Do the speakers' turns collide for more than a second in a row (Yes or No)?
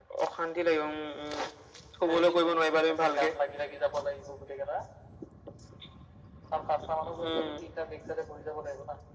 Yes